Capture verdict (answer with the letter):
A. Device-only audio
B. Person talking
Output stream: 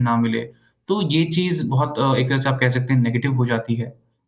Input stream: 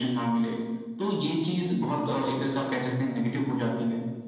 A